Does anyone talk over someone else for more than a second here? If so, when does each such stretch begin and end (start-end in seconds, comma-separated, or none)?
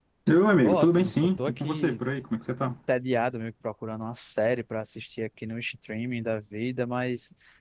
0.6-2.0